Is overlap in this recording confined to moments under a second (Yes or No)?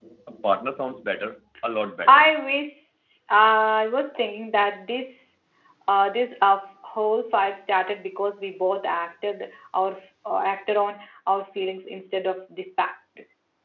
Yes